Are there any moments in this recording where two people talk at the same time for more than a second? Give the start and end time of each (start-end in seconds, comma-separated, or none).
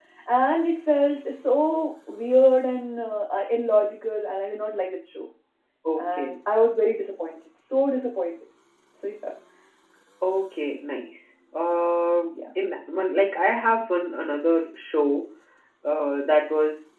none